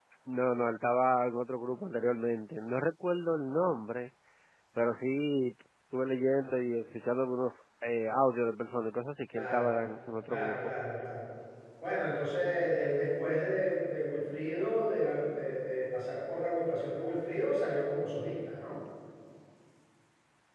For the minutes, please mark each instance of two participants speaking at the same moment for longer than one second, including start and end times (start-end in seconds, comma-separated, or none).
none